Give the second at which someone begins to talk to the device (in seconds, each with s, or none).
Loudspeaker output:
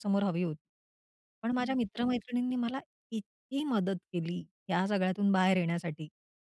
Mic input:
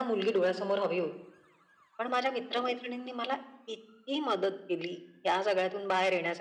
none